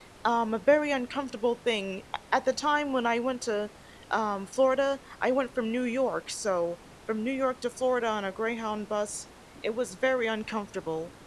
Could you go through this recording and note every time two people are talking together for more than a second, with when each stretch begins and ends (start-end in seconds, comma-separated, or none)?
none